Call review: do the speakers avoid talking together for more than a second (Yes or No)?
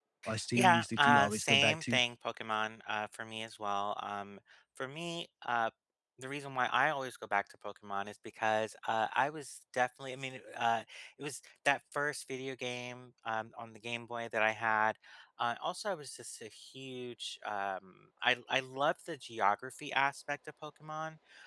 No